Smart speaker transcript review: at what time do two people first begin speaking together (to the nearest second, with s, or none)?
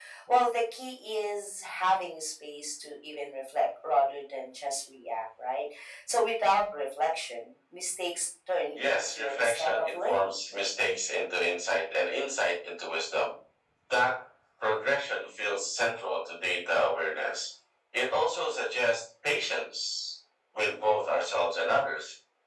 9 s